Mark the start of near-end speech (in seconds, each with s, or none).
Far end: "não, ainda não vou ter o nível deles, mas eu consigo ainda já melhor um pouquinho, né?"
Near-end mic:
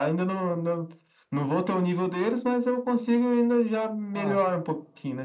4.1 s